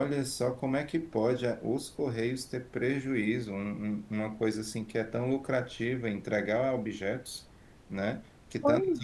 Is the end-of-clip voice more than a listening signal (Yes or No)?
No